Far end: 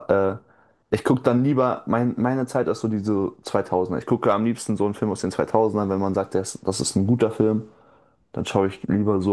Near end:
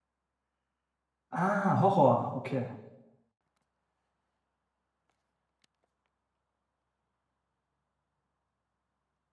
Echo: none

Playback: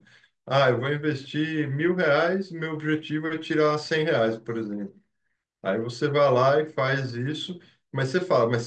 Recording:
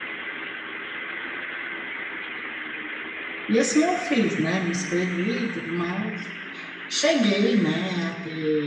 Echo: none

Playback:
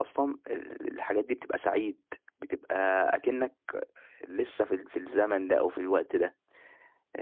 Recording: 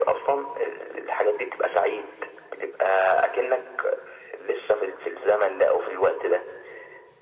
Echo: present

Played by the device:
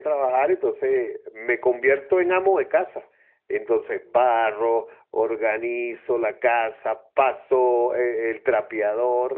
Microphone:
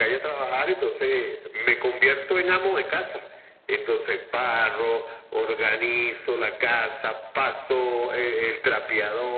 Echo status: present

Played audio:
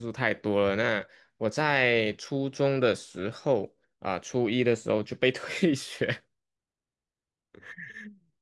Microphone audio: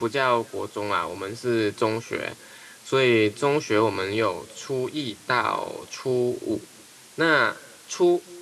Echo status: none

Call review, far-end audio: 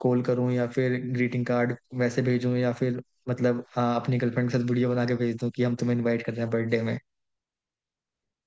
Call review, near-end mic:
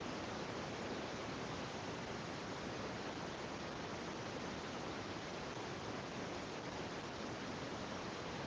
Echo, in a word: none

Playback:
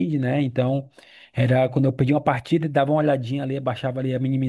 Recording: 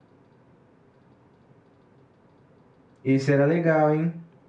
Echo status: none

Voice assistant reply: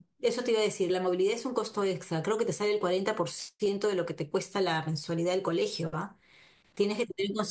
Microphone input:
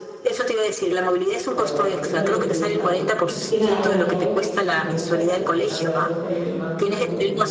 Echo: present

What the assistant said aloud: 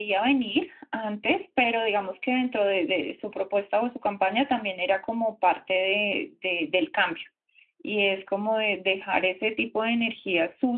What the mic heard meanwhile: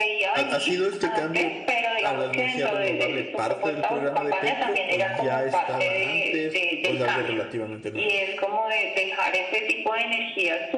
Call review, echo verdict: present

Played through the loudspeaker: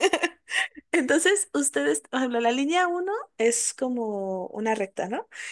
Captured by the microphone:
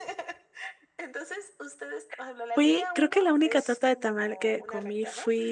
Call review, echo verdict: present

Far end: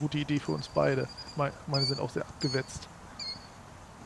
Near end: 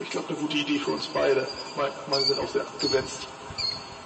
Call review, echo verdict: present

